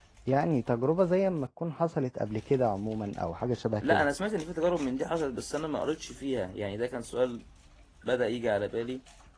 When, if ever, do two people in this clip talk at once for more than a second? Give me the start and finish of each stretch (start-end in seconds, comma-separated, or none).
none